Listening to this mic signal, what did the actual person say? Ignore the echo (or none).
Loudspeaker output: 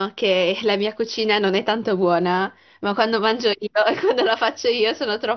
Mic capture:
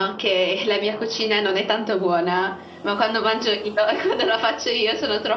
none